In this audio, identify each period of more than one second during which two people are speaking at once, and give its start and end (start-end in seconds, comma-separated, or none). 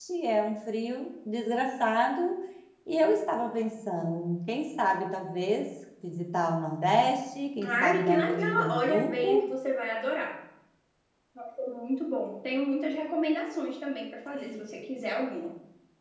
7.6-9.5